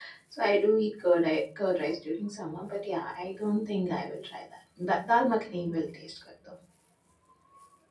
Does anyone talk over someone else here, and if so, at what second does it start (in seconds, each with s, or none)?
none